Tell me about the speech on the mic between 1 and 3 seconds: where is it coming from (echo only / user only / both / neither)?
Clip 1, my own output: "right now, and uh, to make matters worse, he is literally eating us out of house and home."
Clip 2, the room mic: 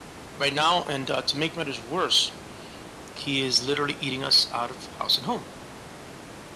echo only